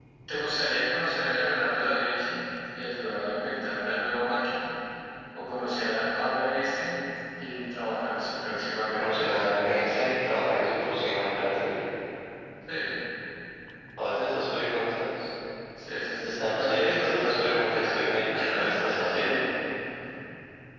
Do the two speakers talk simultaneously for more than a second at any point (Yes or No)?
Yes